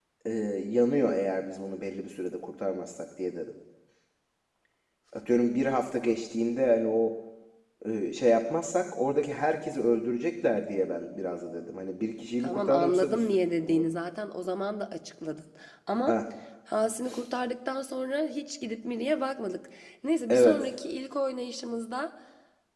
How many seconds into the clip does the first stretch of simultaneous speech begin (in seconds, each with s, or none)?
12.4 s